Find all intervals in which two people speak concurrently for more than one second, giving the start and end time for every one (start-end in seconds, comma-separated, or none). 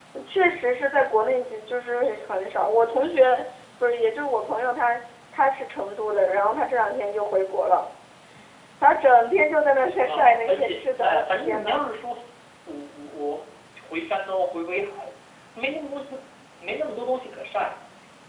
10.1-11.8